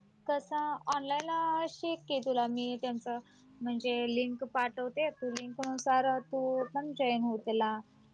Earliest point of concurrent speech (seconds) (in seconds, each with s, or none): none